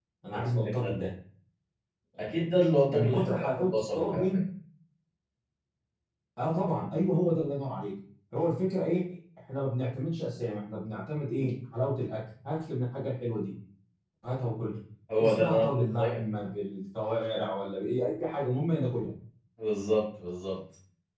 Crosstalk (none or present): present